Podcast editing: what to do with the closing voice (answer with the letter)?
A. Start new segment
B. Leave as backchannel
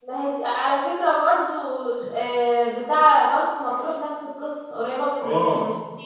A